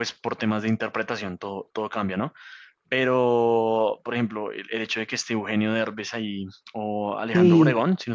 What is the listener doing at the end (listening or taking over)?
listening